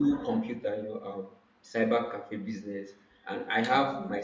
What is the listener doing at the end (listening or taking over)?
listening